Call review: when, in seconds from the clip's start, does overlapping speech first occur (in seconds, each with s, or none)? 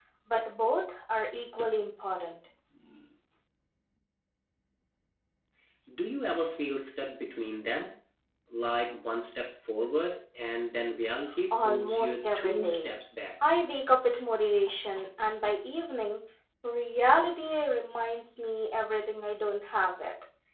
11.5 s